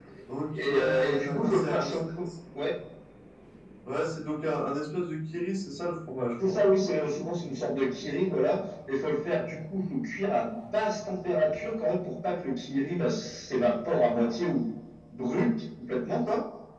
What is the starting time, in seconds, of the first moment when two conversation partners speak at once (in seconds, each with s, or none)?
0.5 s